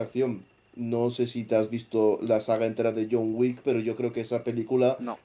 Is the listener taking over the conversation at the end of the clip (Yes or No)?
No